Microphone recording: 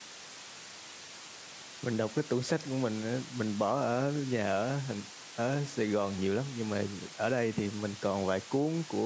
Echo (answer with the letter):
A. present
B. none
B